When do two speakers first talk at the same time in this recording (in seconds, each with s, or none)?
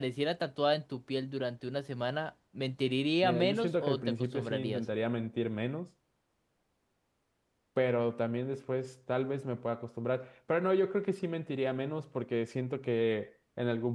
3.2 s